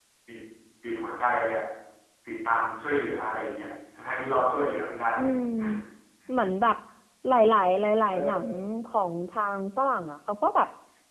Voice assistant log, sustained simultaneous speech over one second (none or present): none